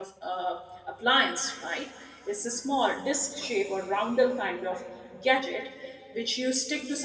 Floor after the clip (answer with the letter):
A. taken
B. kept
B